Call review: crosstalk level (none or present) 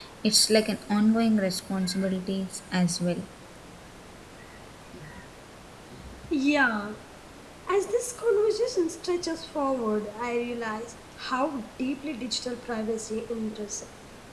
none